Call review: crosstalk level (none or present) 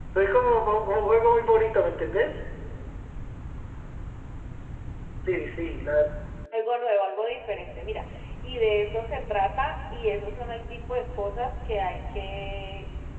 none